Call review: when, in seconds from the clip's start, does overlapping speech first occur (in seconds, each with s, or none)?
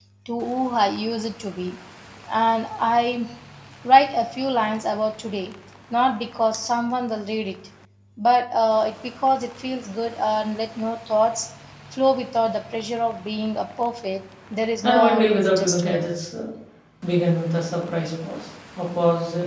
14.8 s